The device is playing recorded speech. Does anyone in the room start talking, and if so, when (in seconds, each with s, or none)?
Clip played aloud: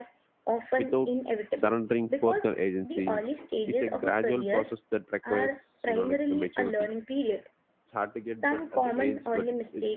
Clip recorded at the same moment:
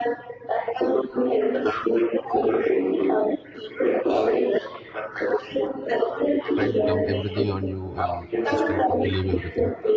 6.5 s